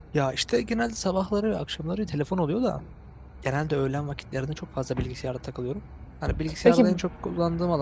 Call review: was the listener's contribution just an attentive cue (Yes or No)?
Yes